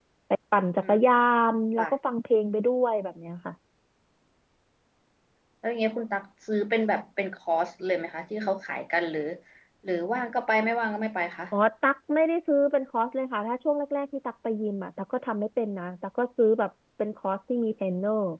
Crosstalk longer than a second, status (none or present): none